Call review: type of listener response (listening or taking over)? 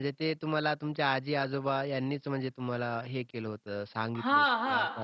taking over